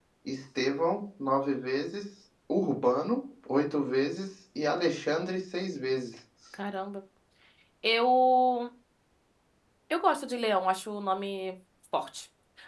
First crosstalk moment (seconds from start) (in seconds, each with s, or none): none